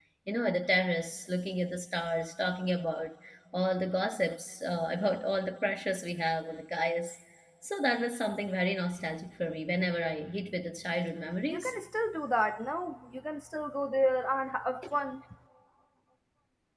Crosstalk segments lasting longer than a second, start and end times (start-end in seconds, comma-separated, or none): none